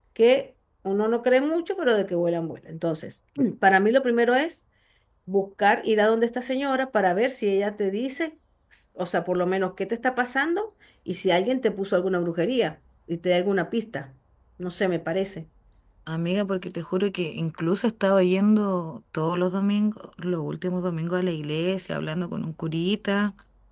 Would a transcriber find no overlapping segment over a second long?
Yes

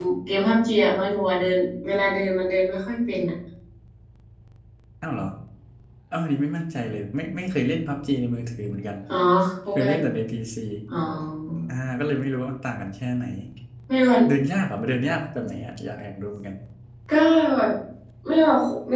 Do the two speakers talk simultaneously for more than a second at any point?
No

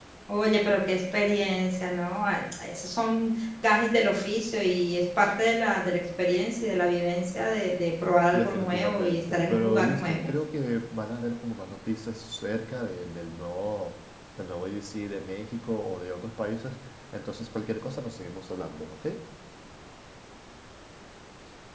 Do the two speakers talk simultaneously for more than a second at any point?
Yes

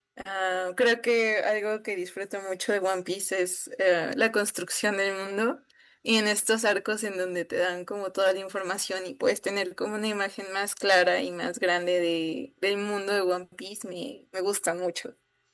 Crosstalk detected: No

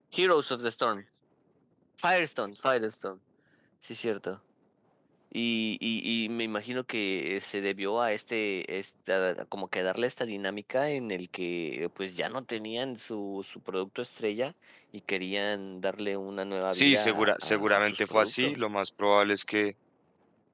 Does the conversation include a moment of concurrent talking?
Yes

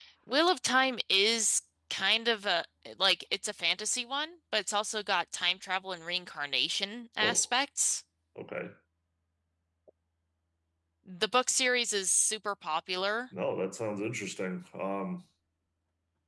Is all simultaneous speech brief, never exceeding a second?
Yes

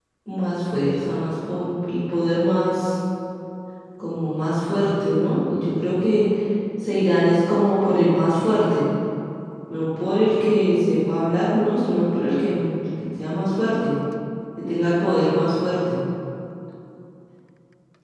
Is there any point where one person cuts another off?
No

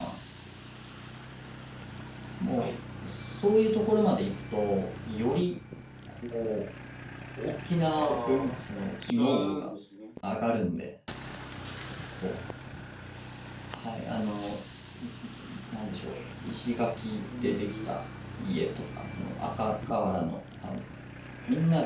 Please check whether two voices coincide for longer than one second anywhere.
Yes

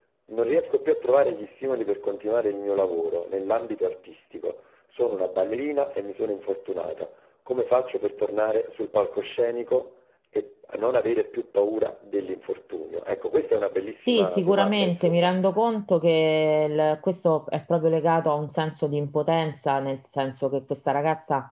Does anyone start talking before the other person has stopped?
Yes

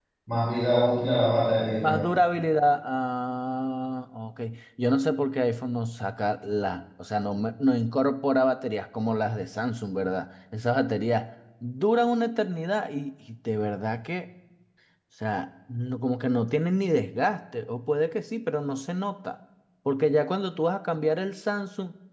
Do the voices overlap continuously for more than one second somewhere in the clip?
No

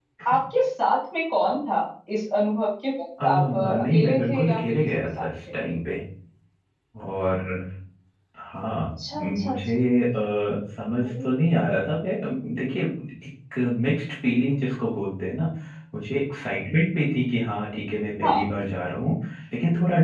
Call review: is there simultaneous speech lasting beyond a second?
Yes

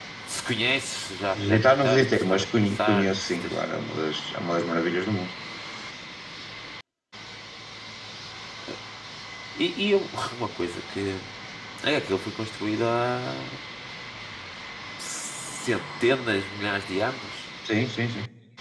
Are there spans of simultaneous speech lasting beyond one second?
Yes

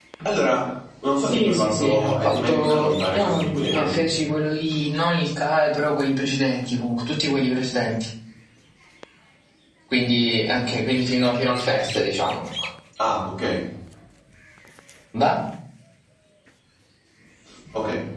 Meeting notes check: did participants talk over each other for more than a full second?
Yes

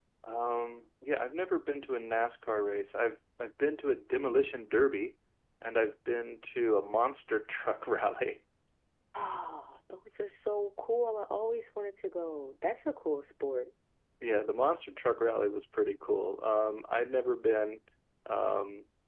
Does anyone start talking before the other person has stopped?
No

